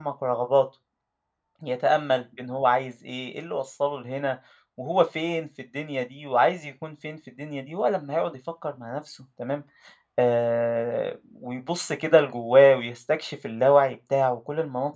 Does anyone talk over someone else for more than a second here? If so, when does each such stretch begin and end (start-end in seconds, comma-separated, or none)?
none